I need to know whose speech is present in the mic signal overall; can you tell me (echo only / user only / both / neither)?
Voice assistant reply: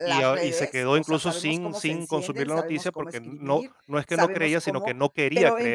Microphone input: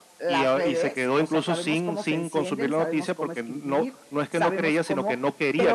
echo only